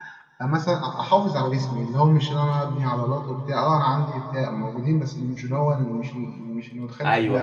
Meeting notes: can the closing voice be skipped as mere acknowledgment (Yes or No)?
No